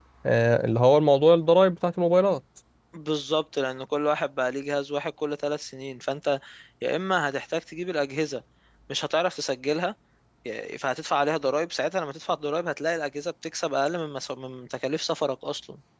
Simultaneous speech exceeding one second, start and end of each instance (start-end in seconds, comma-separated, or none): none